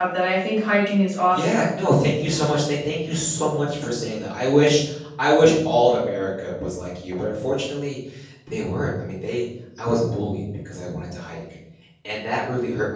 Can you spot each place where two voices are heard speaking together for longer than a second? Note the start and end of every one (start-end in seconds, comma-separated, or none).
none